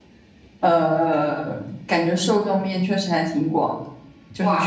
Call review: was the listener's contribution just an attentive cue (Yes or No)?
No